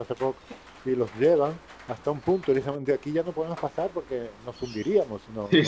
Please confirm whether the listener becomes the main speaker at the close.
No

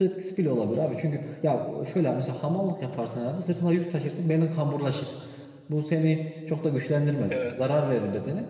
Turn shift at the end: No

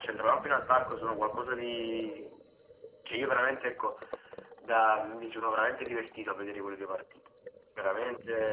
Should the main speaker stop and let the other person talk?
Yes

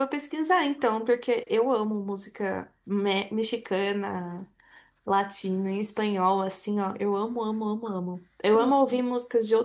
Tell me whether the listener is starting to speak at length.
No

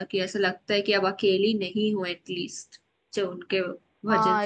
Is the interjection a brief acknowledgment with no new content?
No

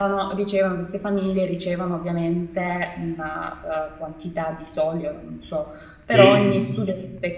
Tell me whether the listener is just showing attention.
Yes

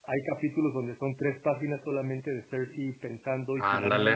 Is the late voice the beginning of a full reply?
No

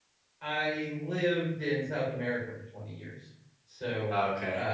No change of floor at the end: Yes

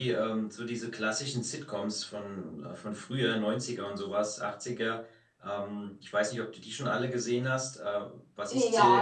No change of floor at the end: No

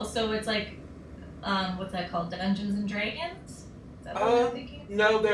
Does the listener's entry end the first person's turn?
Yes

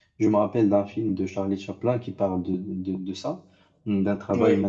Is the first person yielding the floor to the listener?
No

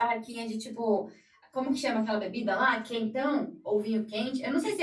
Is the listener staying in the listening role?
No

